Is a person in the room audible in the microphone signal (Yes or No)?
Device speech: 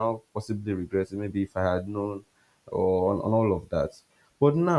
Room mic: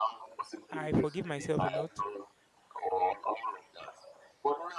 Yes